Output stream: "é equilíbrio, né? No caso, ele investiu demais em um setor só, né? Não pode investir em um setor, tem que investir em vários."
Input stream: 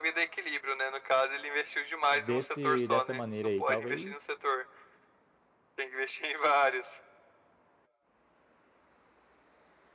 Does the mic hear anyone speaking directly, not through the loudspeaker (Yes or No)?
Yes